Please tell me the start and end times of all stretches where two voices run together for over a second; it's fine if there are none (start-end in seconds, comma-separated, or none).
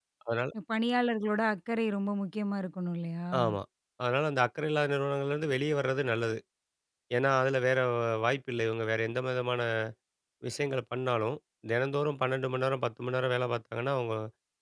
none